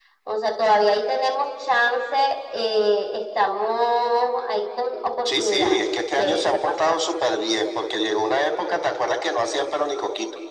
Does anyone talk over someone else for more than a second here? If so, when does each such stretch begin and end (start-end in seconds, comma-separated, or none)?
5.2-7.0